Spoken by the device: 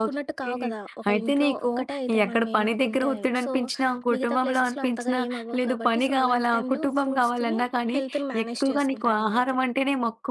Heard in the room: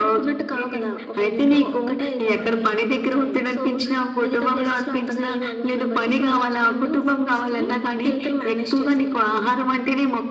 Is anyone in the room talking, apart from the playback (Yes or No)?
No